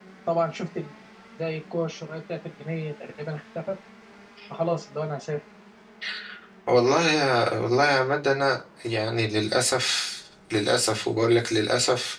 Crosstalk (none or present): none